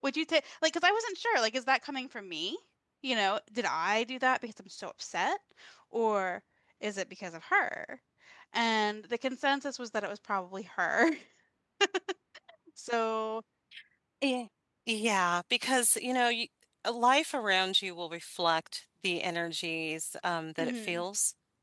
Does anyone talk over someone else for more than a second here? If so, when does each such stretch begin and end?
none

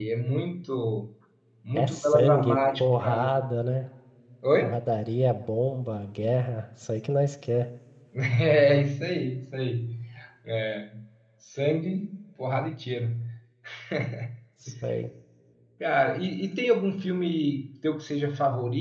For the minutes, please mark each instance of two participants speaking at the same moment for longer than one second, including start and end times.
1.8-3.3

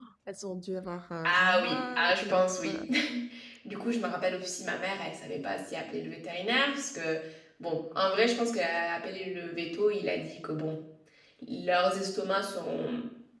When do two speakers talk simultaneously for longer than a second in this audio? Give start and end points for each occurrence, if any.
1.3-2.8

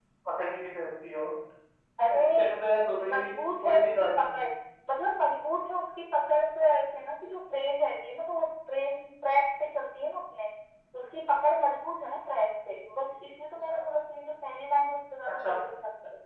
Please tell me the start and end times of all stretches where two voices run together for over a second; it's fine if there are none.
3.1-4.4

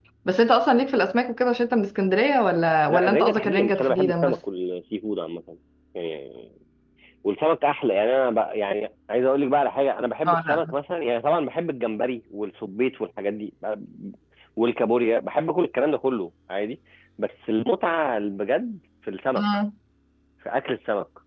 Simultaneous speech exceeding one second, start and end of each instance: 2.9-4.4

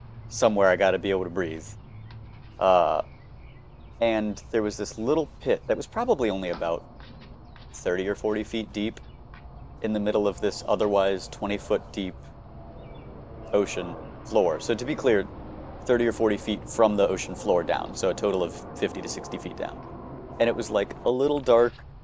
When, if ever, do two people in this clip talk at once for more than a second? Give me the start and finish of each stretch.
none

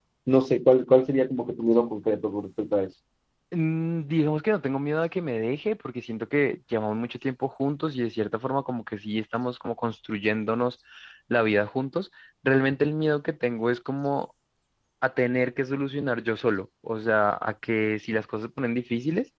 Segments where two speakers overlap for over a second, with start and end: none

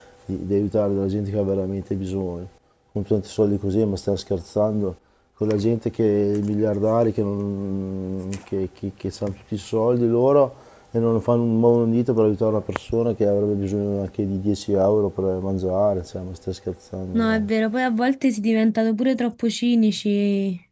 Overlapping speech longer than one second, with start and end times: none

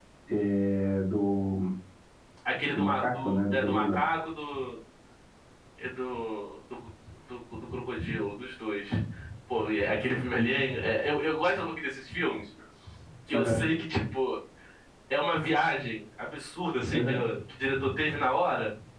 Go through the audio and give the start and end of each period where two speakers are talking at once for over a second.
2.7-4.0

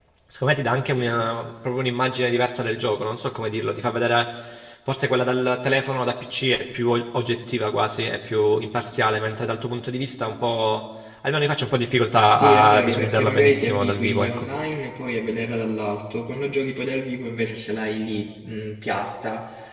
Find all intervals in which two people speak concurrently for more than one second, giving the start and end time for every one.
12.3-14.5

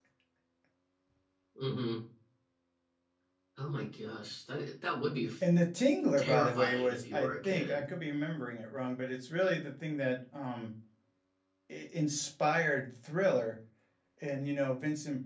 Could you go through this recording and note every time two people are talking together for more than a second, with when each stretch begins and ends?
6.2-7.8

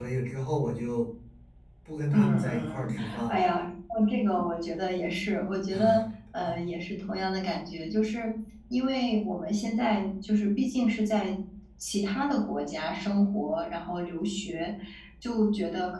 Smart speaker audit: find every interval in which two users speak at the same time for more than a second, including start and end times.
2.1-3.4

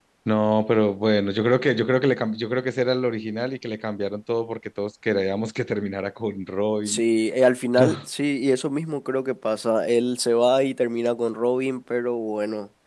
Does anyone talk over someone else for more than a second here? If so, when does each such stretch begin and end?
none

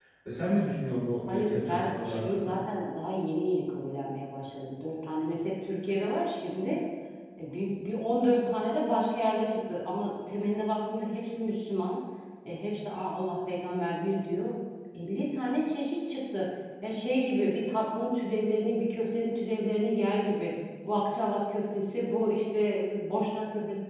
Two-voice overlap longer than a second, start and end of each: 1.3-2.5

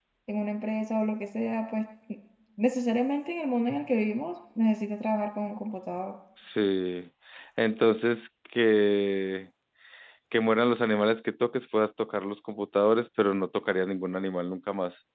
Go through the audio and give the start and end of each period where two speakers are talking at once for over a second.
none

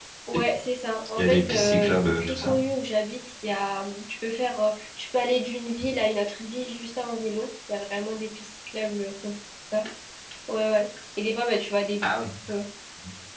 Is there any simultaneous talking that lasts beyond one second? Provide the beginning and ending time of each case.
1.2-2.5

